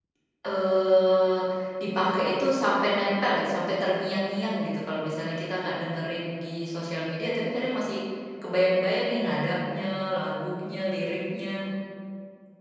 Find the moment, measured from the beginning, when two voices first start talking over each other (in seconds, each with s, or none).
none